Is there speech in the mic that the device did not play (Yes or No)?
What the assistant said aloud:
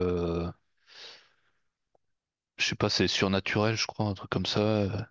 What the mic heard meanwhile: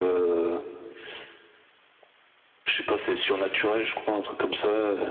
No